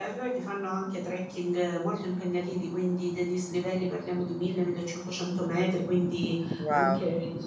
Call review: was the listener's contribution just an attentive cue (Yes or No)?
Yes